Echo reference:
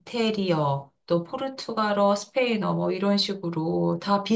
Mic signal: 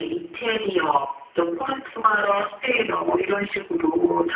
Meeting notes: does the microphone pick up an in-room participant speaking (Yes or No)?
No